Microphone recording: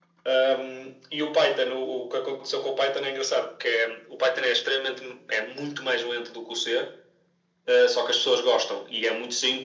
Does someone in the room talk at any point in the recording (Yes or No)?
No